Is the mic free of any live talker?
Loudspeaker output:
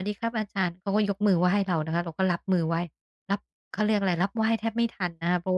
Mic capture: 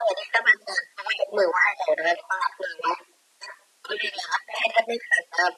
Yes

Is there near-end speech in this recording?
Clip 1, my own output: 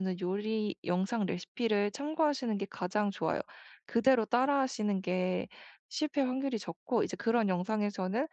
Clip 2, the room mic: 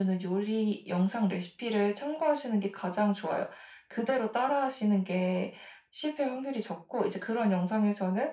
No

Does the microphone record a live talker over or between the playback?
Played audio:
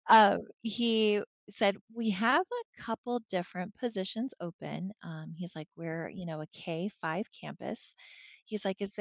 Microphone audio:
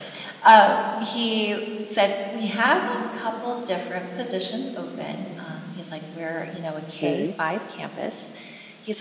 Yes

